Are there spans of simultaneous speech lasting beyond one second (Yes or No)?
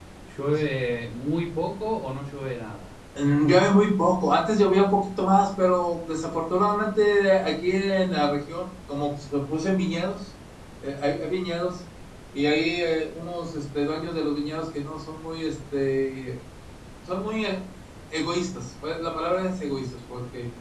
No